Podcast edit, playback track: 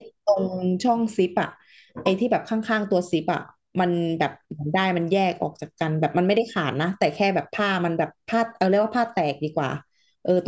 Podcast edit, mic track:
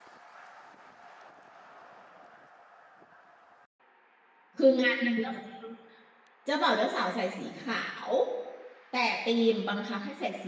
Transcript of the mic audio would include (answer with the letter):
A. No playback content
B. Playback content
A